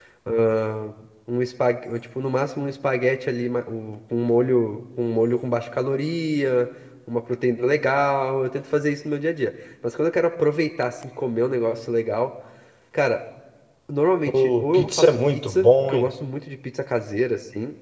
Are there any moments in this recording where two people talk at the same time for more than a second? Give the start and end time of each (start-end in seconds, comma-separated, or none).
14.3-16.1